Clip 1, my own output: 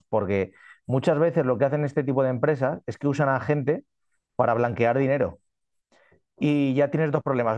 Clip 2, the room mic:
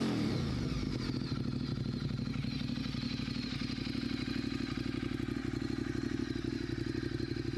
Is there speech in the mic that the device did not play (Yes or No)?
No